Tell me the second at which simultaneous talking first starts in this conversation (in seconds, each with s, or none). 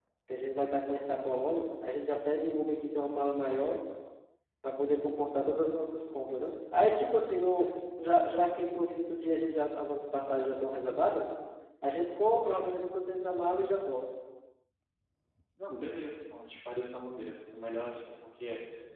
none